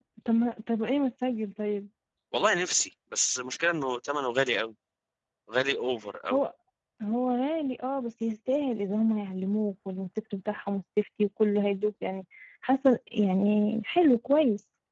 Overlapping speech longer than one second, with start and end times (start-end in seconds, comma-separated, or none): none